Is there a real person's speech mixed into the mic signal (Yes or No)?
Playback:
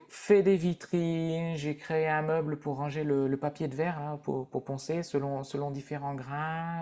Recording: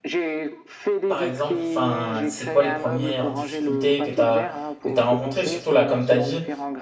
Yes